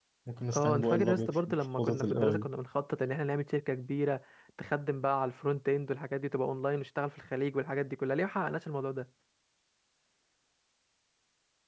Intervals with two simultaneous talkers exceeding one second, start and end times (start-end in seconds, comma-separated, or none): 0.6-2.5